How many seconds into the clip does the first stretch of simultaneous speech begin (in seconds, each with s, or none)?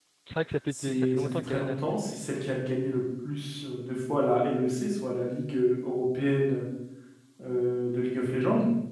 0.7 s